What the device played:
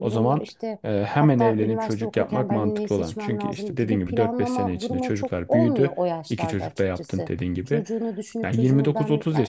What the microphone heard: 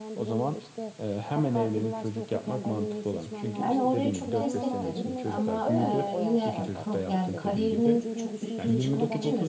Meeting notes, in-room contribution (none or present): present